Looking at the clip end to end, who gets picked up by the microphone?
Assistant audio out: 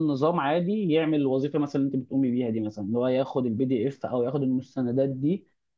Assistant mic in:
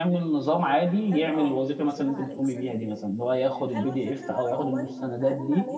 both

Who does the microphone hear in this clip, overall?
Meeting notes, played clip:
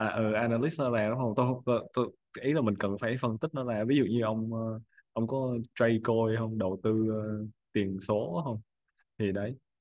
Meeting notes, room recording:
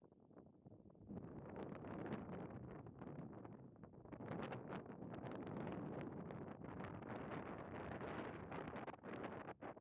neither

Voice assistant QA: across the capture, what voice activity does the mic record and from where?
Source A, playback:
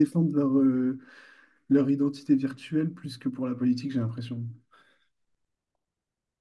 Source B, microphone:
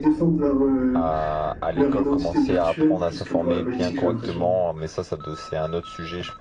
both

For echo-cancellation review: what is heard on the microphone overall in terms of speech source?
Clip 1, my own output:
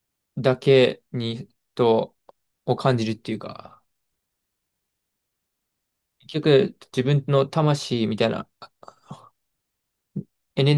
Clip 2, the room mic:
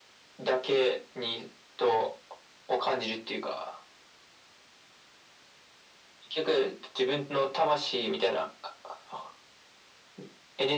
echo only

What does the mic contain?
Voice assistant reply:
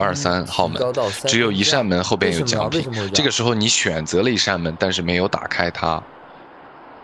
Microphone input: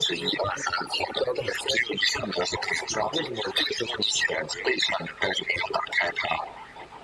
echo only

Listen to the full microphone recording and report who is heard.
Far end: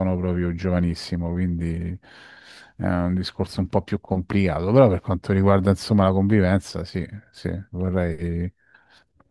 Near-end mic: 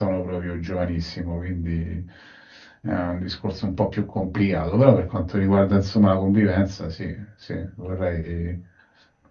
echo only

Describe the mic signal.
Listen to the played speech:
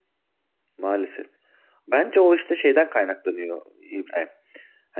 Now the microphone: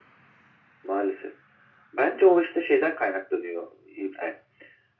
echo only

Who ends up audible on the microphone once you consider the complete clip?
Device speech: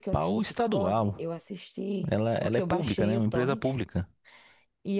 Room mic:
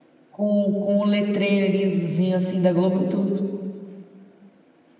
user only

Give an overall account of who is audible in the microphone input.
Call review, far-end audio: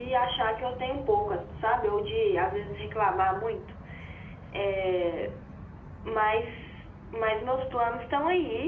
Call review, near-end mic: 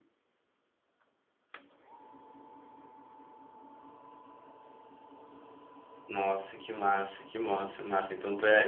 user only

